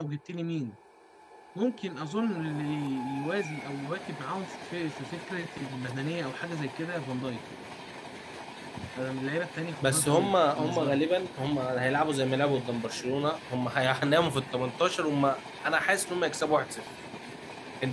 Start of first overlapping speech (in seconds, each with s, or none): 9.8 s